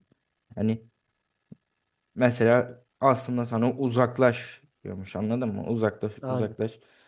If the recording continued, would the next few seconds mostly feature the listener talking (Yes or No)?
No